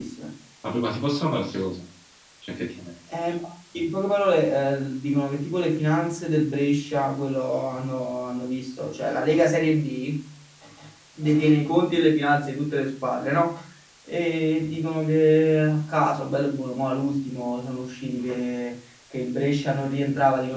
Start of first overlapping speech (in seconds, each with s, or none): none